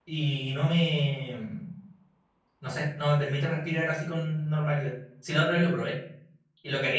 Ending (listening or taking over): listening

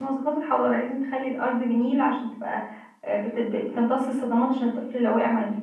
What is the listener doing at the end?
listening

